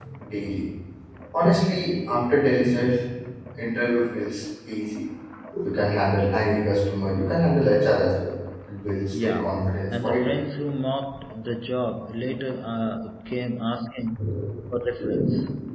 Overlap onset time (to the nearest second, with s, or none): 9 s